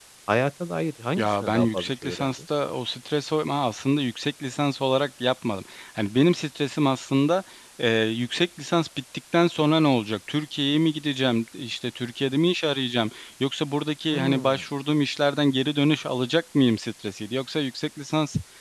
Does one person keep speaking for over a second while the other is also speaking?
Yes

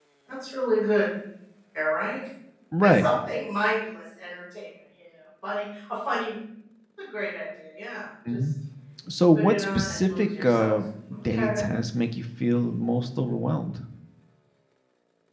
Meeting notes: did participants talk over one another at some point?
Yes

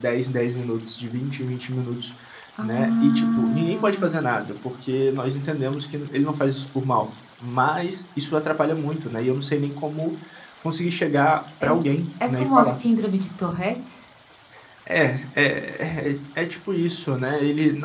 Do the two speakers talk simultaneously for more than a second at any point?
Yes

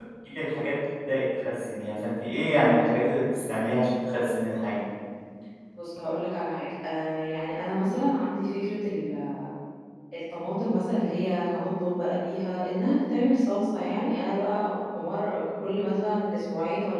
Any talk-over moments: No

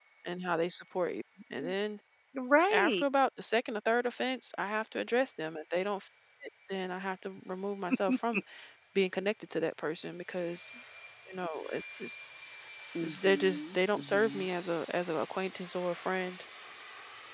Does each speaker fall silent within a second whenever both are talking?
No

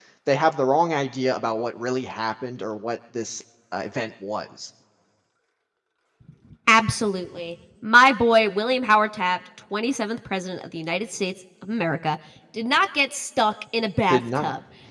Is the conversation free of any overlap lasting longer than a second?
Yes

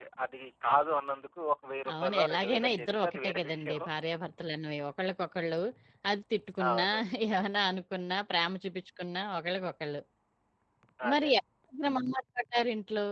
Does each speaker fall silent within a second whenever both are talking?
No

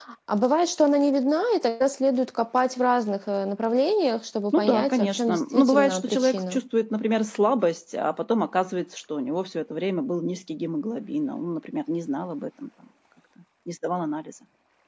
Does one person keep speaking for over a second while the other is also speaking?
Yes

